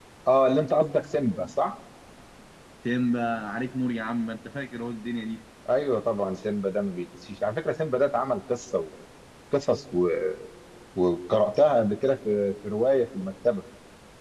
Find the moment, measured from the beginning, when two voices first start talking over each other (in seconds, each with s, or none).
none